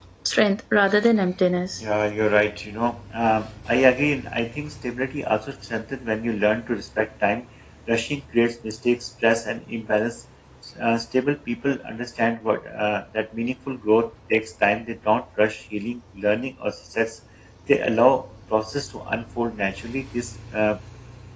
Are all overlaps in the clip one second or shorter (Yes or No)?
Yes